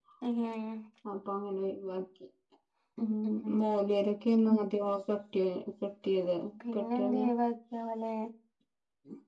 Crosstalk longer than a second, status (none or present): none